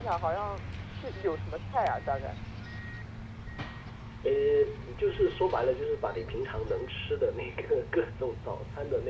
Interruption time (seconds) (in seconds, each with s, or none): none